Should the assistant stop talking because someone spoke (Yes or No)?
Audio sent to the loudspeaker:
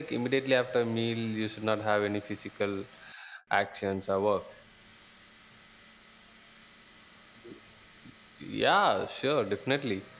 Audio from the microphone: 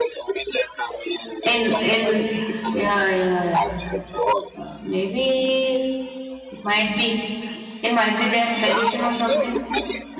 Yes